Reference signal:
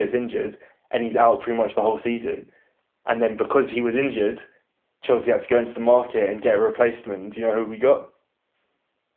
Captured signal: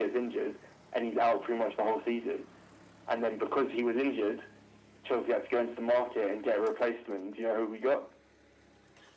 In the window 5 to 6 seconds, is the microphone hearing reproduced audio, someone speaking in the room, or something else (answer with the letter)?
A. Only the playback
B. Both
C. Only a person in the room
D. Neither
A